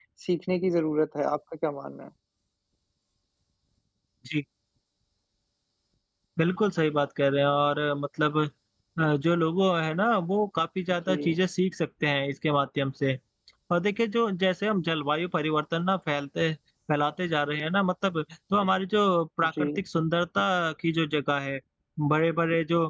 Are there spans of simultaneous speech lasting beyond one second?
No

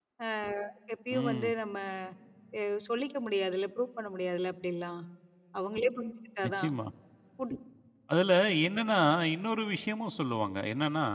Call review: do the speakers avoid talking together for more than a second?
Yes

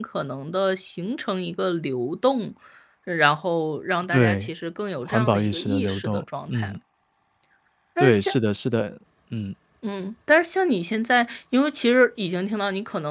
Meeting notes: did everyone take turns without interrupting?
No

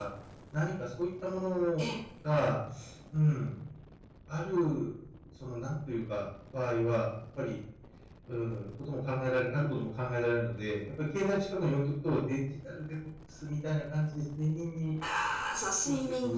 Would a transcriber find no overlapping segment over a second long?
Yes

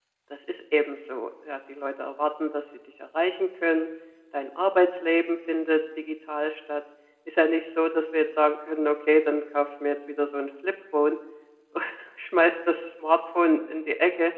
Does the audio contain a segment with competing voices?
No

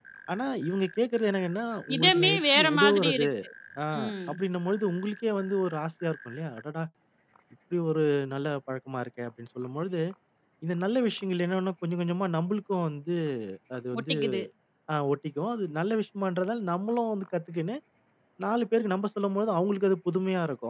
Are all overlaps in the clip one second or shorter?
No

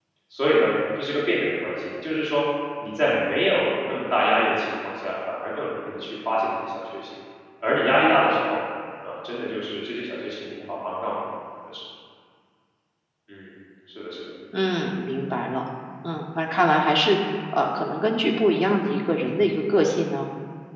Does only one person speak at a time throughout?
Yes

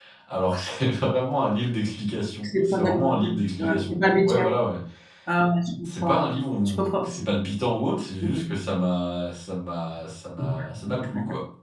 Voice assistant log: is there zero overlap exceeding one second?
No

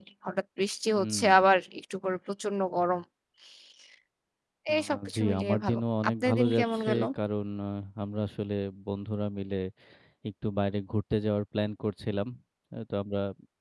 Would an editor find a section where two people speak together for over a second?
Yes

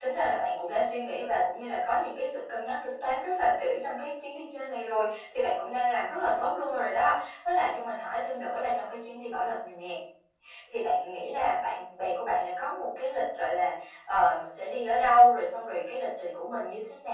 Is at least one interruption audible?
No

